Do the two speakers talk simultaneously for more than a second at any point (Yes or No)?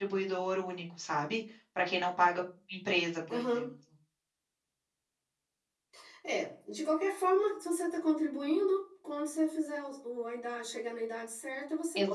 No